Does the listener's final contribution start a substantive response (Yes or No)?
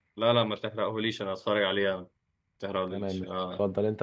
Yes